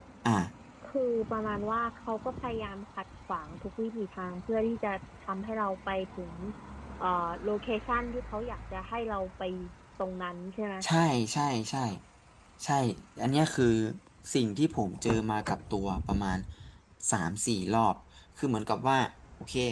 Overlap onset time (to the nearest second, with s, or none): none